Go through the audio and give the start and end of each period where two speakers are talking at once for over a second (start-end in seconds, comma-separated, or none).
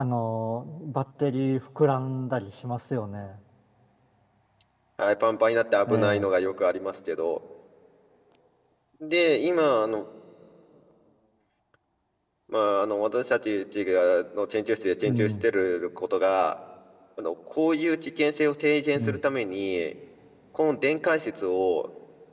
none